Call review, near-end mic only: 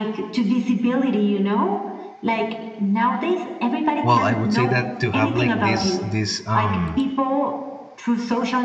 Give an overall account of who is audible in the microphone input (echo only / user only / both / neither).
both